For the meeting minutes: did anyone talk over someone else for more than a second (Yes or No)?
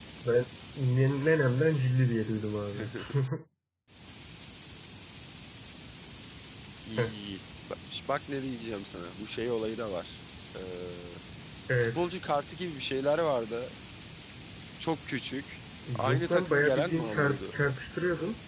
Yes